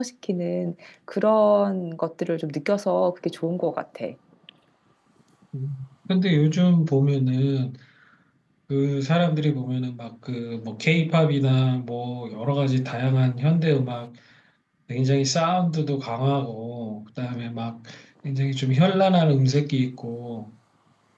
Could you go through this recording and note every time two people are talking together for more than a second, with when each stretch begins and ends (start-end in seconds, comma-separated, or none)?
none